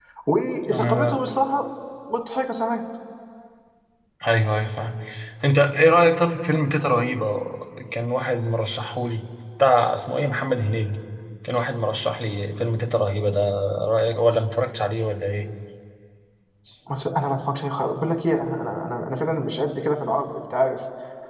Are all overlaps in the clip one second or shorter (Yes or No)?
Yes